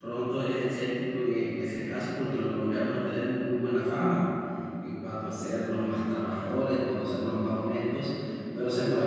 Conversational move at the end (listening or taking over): listening